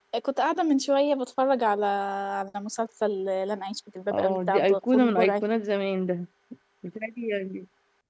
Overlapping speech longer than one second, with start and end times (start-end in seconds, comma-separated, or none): 4.1-5.3